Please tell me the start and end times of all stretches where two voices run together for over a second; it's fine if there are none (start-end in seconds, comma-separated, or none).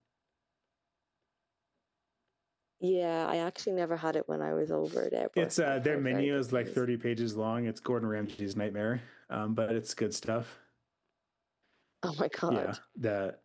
5.4-6.8